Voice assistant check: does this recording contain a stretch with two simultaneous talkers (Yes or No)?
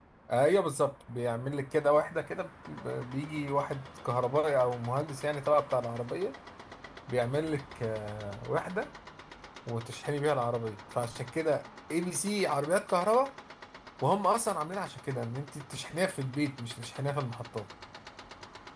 No